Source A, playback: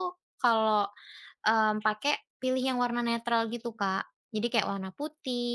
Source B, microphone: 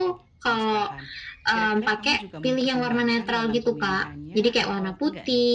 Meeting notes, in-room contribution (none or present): present